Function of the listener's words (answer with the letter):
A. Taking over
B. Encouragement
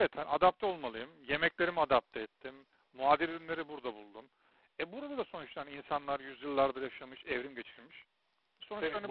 A